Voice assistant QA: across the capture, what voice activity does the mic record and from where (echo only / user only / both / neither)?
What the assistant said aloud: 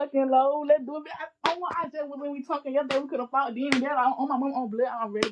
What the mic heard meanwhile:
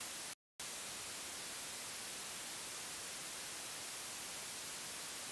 neither